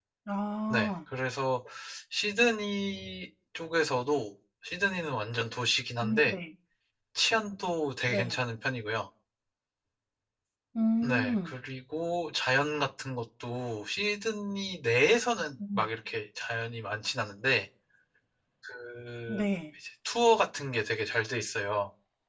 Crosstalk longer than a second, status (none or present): none